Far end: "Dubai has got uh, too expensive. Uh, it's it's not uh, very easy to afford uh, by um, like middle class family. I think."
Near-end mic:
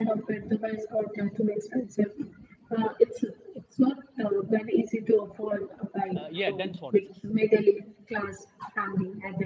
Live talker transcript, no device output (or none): Uh, yeah, dense forests.